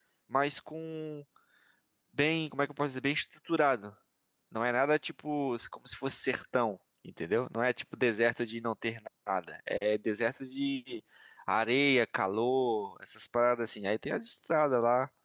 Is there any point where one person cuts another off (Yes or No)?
No